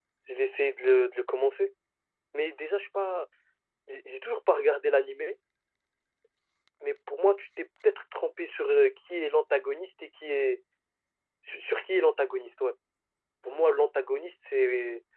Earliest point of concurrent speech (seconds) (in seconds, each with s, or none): none